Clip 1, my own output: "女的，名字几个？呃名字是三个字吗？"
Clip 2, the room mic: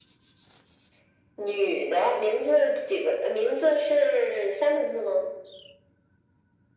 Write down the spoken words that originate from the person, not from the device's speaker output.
none

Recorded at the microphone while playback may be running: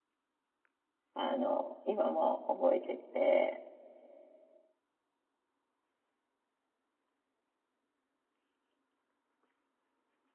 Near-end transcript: あの、今も覚えてて、

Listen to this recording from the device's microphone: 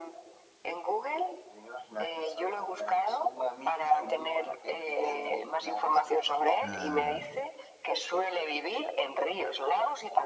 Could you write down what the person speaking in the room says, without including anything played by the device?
ah,

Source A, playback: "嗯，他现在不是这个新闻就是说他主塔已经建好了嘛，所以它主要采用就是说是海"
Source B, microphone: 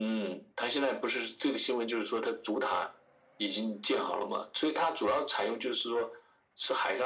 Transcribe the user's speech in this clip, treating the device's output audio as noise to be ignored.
none

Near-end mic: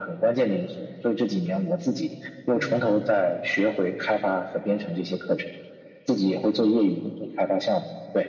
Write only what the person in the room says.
嗯，

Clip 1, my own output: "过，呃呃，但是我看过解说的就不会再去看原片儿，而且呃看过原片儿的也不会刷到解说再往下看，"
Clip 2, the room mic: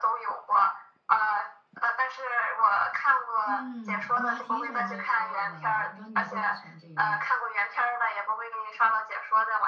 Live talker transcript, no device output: 嗯，我还挺喜欢这一类的，我不知道你会不会喜欢这一类。

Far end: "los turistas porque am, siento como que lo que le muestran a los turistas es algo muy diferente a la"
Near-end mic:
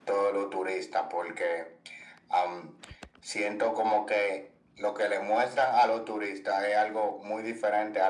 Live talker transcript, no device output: none

